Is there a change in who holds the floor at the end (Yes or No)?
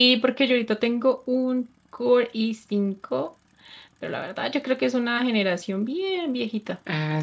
Yes